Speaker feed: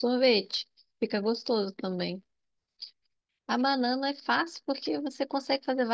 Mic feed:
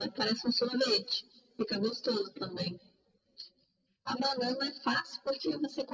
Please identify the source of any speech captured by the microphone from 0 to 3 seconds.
echo only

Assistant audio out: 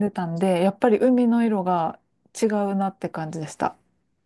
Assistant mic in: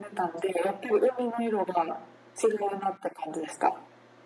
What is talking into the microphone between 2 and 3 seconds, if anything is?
echo only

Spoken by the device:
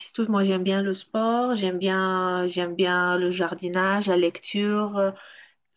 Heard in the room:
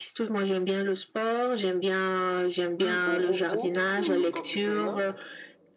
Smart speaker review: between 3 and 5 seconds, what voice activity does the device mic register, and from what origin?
both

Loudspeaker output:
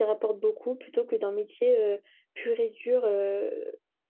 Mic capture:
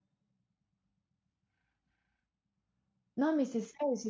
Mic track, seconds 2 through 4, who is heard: user only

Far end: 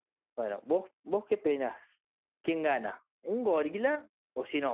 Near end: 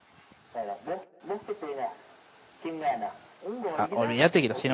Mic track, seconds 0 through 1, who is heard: echo only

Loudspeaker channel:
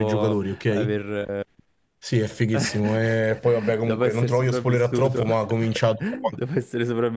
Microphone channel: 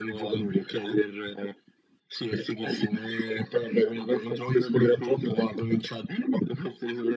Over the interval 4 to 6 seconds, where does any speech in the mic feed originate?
echo only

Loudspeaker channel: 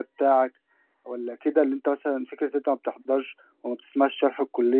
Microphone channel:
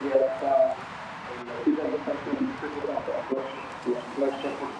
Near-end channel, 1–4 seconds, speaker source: echo only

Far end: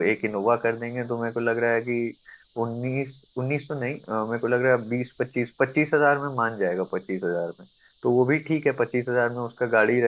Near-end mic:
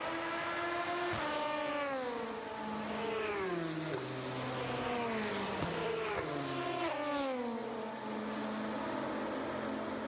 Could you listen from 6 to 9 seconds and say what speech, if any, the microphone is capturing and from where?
neither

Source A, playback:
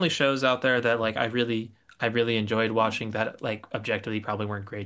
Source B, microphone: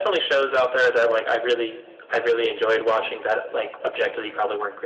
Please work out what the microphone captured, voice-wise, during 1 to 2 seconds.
echo only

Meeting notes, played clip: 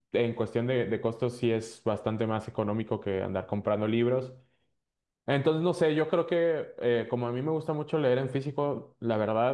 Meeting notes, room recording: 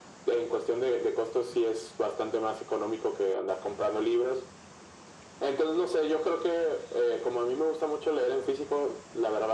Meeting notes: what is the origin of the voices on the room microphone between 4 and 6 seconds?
echo only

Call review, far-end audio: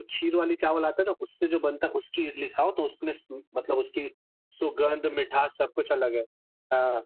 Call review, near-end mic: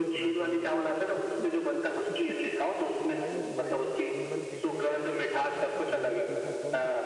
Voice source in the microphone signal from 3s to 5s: both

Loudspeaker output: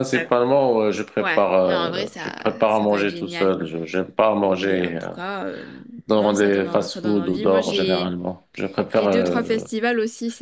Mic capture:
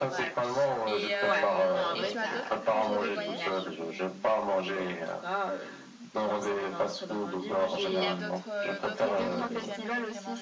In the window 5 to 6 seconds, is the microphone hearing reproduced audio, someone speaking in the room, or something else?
echo only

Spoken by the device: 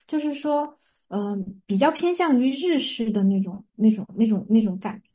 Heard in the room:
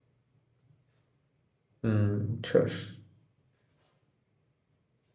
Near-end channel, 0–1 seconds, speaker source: neither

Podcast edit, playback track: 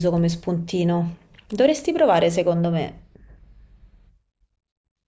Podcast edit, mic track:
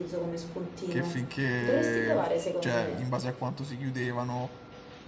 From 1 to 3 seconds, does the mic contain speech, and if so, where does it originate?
both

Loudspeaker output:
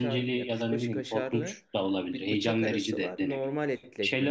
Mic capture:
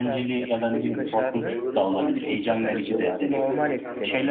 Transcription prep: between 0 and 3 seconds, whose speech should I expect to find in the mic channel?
both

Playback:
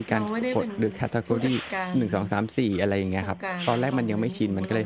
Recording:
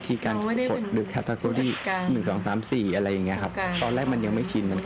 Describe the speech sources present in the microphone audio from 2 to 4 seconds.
echo only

